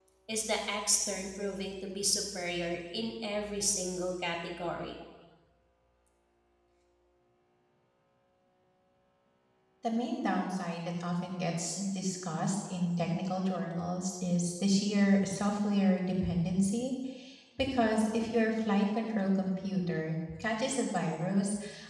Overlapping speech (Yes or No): No